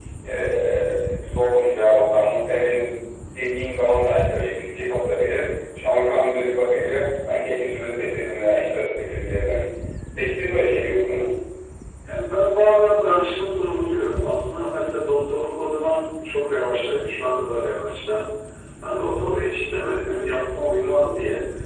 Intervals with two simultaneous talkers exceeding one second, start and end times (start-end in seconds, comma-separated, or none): none